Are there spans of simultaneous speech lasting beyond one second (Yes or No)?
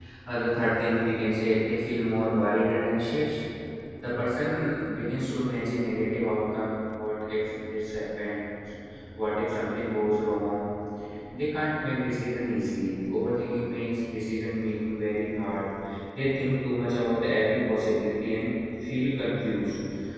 No